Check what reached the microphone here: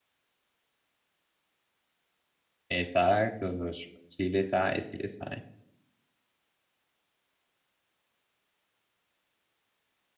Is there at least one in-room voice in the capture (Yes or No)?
Yes